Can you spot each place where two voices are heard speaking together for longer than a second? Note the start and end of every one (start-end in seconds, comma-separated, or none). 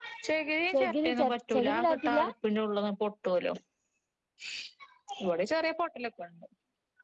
0.7-2.3